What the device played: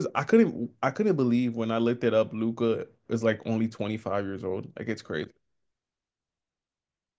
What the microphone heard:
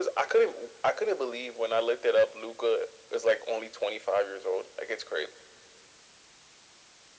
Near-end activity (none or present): none